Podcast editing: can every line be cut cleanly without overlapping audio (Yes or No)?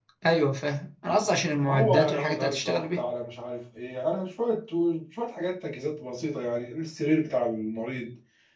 No